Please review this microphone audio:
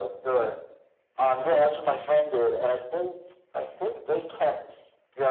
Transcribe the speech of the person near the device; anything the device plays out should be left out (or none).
none